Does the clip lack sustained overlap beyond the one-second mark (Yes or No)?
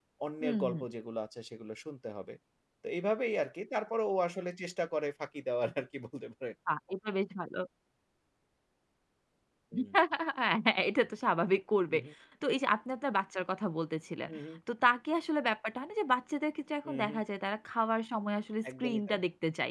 Yes